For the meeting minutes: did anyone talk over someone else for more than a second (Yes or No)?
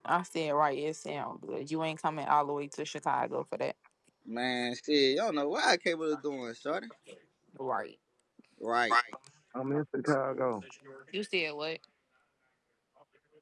No